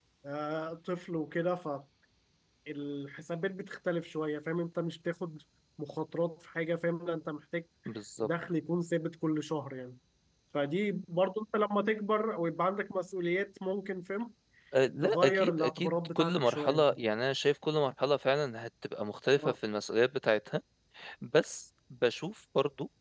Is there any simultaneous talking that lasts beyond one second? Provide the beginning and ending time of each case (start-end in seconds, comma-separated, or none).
15.0-16.8